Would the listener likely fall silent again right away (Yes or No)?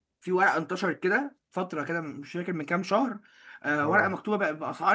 Yes